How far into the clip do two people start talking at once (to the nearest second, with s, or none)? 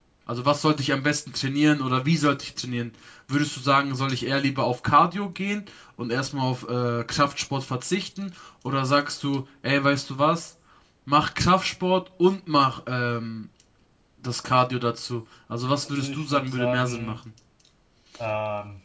16 s